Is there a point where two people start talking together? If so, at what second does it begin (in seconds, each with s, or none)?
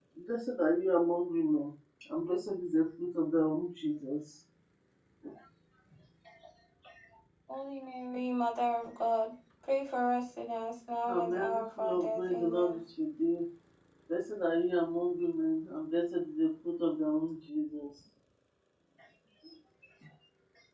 11.1 s